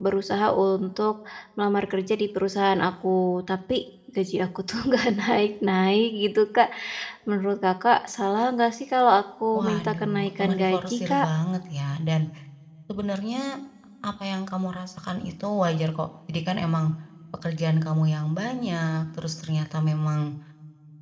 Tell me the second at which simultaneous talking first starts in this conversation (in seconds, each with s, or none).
9.5 s